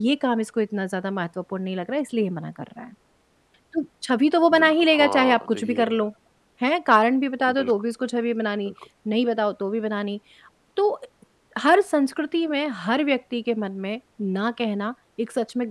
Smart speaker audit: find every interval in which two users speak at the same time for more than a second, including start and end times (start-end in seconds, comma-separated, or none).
4.5-6.0